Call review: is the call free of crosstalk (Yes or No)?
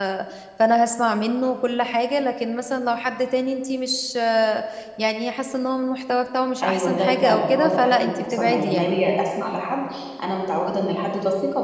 No